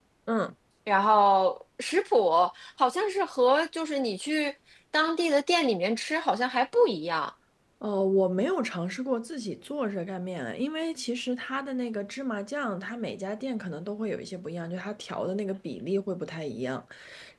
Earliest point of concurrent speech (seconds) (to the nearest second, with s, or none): none